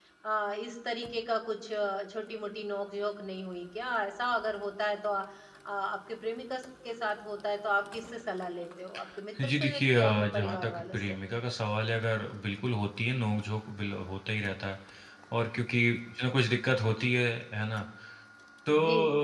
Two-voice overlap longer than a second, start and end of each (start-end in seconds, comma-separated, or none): 9.4-11.2